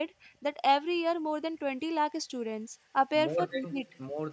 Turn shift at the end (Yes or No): Yes